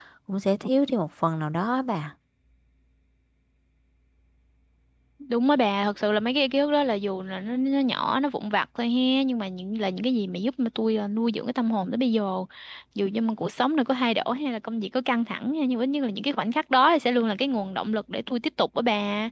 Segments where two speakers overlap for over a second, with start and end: none

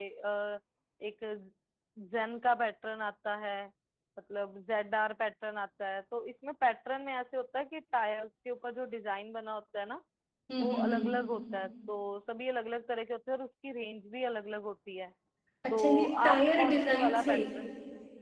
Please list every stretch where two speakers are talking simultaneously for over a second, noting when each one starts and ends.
15.7-17.3

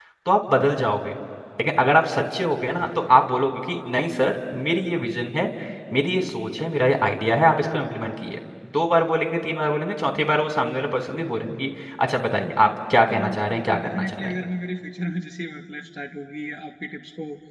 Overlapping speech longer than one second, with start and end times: 13.1-14.4

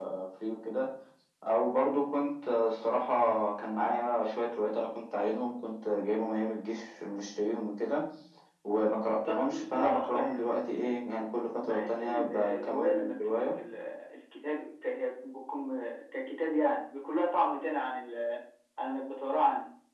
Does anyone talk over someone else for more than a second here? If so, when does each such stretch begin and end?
9.2-10.8, 11.6-13.6

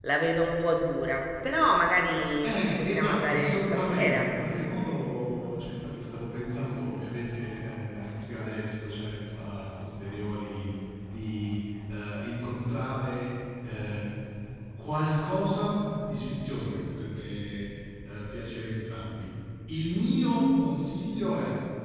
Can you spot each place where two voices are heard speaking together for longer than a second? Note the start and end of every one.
2.4-4.3

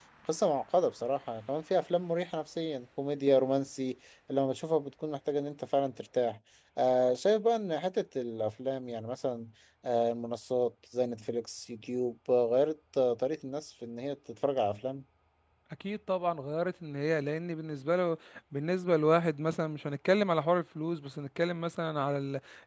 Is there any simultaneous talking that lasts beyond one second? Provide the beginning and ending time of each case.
none

